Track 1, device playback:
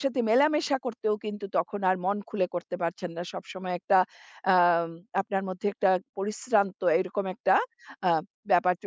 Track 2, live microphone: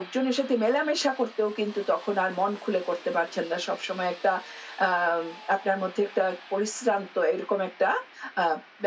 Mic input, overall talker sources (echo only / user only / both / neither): echo only